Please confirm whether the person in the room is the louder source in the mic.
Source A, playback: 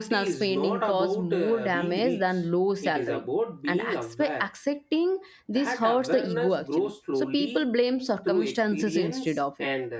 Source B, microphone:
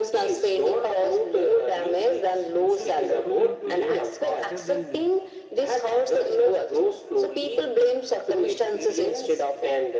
No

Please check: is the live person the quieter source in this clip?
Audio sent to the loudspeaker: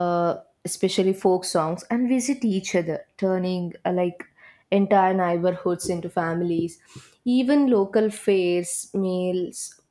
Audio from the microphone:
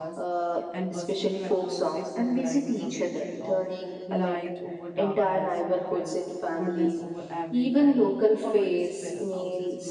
Yes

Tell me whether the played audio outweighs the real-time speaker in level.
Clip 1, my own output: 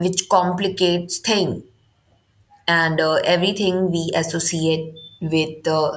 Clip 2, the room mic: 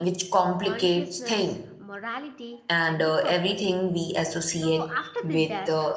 Yes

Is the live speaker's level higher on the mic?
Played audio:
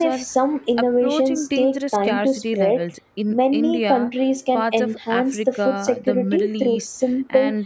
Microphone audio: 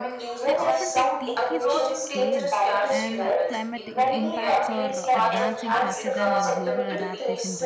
No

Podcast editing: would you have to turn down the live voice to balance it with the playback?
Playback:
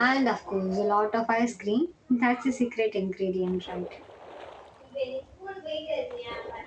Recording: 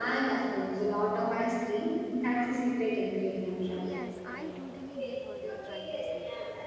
No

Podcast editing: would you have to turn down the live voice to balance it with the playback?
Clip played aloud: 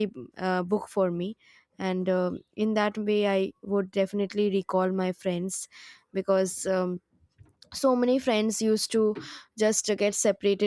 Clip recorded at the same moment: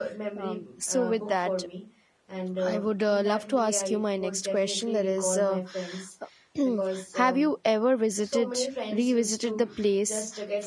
Yes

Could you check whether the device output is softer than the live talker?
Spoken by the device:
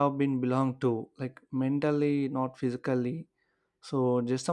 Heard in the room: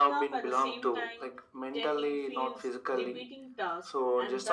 No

